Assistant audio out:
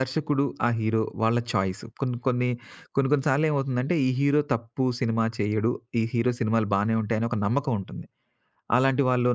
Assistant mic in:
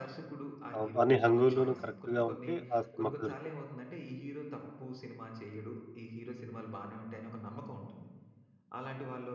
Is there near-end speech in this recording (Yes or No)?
Yes